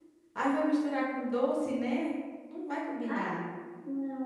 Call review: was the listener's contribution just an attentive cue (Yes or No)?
No